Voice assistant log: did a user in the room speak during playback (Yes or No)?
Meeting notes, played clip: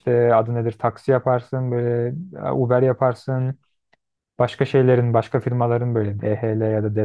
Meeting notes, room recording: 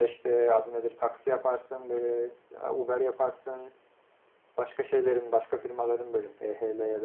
No